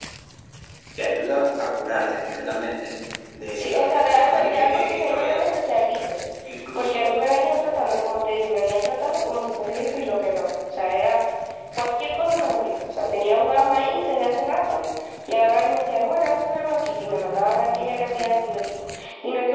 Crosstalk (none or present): present